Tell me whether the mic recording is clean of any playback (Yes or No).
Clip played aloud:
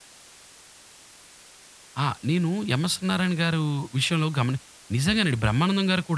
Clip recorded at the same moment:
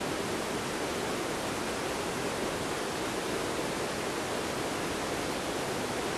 Yes